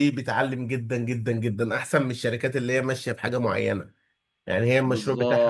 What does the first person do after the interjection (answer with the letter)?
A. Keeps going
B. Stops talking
B